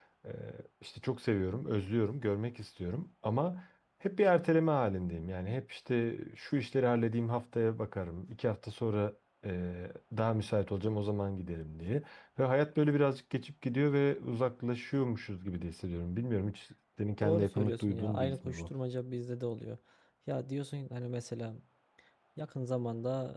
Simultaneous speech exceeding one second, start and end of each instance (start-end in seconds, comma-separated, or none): 17.2-18.7